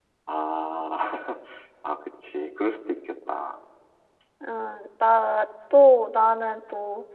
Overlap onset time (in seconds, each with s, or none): none